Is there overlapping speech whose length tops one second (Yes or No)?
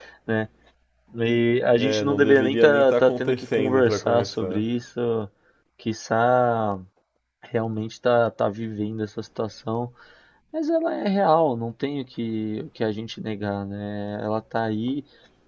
Yes